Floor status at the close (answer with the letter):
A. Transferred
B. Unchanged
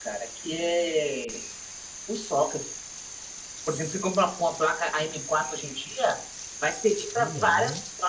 B